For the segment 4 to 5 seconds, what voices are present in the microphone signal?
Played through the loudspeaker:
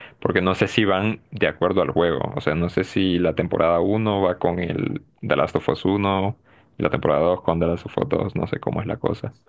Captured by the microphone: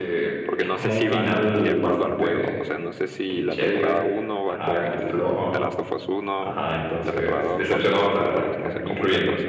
both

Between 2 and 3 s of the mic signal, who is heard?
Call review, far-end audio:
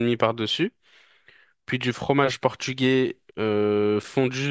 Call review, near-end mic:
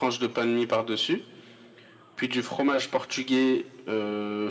echo only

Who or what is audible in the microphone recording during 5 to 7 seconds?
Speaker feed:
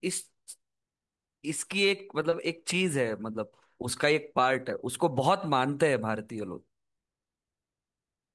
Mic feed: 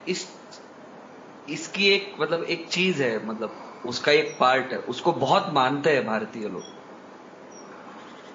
echo only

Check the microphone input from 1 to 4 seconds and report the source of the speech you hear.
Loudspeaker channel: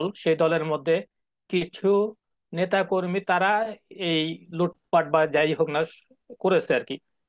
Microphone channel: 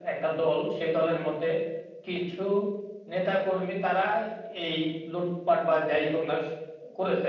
echo only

